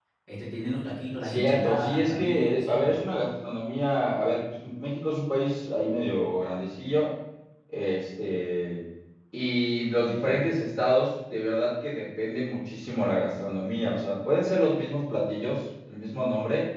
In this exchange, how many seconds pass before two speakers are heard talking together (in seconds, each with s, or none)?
1.2 s